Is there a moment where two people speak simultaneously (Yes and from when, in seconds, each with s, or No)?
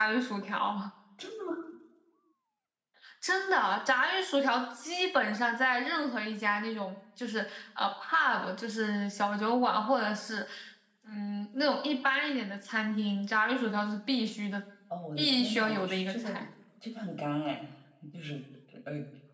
Yes, from 15.2 s